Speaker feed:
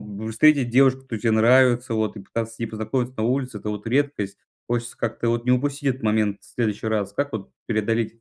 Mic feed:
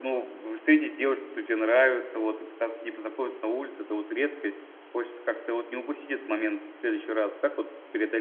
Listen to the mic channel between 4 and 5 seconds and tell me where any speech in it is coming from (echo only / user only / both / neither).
echo only